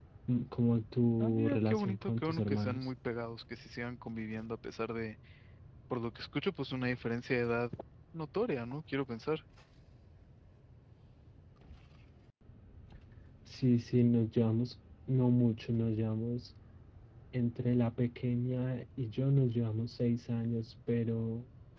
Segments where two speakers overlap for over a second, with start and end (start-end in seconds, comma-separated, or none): 1.2-2.9